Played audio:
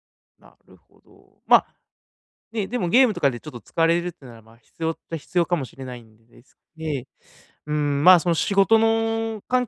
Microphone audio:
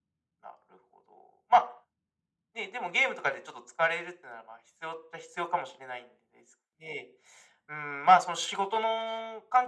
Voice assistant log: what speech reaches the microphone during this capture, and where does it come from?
echo only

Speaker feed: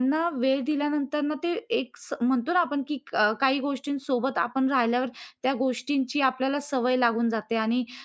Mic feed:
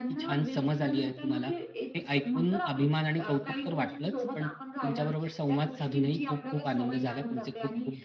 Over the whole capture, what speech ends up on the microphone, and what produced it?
both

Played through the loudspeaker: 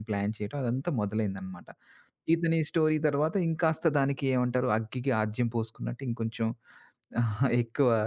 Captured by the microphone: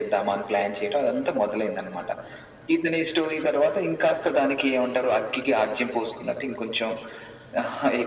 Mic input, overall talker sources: echo only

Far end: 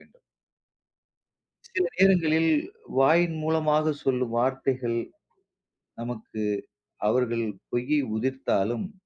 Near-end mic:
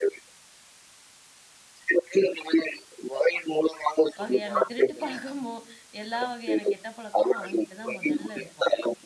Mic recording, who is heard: both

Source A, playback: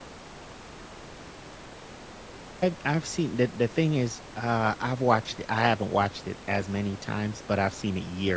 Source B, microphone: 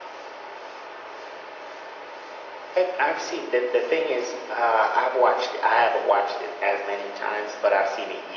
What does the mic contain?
echo only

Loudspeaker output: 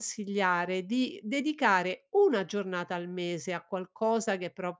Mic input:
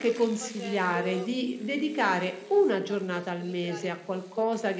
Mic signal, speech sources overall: both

